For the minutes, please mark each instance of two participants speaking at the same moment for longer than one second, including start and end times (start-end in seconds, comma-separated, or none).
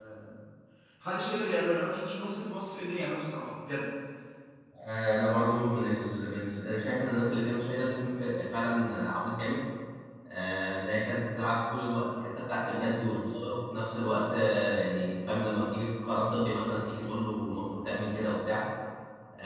none